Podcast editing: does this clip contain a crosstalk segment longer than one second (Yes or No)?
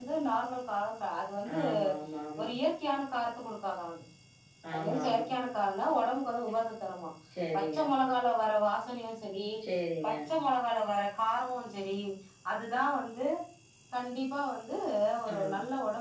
No